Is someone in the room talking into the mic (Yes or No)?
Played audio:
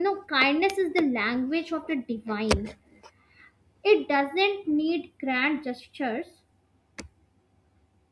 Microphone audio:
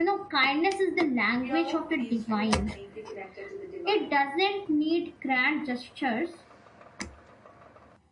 Yes